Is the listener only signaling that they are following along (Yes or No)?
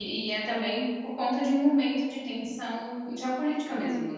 No